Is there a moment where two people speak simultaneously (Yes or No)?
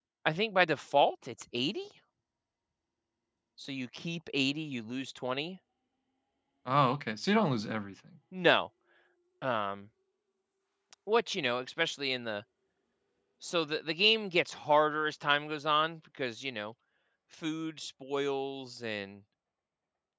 No